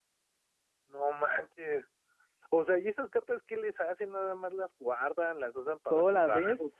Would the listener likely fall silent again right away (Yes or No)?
No